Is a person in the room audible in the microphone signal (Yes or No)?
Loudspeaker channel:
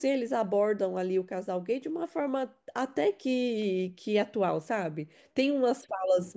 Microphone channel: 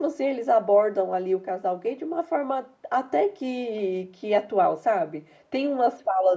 No